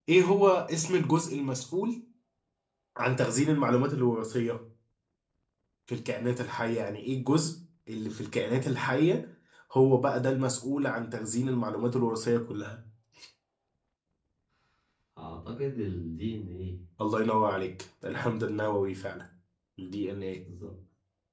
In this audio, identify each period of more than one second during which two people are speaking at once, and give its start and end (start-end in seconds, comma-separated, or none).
none